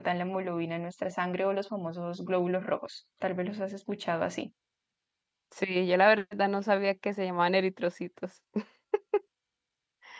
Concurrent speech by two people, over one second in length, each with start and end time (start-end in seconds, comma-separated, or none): none